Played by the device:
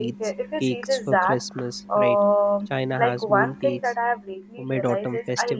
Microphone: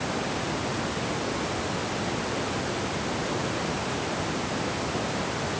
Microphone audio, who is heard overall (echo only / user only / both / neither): neither